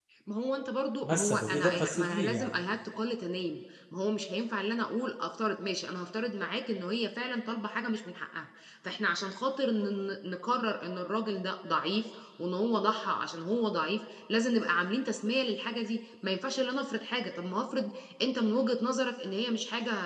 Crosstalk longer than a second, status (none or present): present